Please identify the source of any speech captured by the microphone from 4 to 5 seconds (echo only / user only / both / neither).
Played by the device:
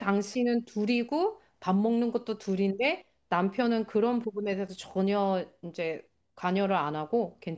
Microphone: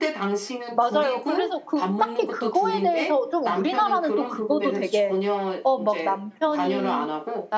both